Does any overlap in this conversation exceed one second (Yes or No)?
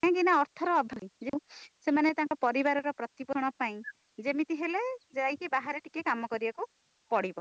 No